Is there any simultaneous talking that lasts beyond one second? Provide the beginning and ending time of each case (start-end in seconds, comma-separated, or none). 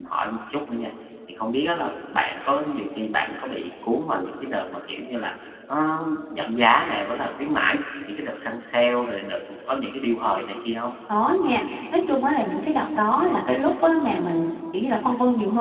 none